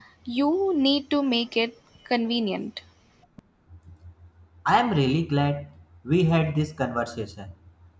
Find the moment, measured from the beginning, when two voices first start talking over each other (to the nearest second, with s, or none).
none